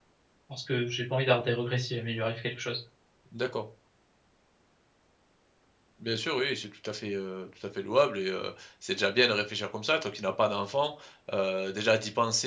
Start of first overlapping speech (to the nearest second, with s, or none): none